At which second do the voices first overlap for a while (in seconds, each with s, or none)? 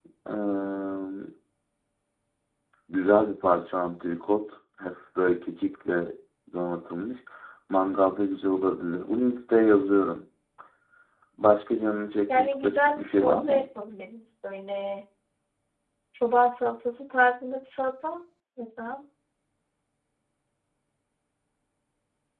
12.3 s